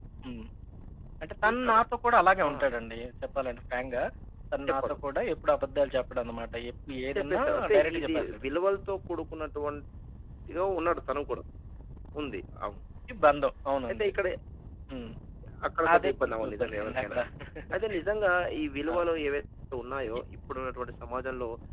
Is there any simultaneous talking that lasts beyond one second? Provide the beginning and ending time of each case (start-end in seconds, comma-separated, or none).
7.2-8.4, 15.9-17.2